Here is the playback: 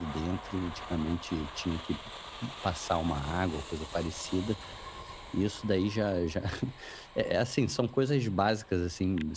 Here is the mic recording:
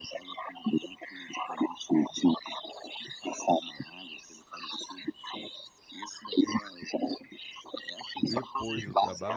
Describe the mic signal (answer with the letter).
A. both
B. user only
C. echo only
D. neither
A